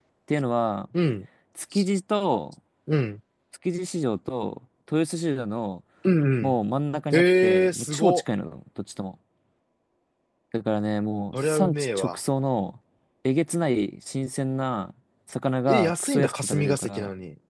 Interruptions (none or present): present